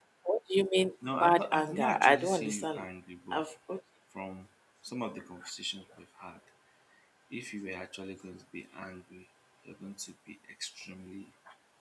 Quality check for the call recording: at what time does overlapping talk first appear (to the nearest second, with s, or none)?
1 s